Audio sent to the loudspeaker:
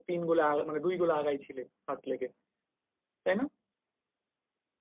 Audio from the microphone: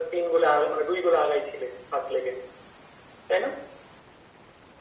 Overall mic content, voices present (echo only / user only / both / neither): echo only